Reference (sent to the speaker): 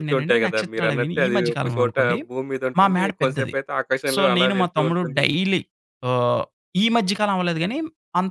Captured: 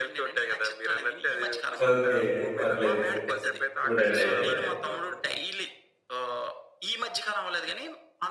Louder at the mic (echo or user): user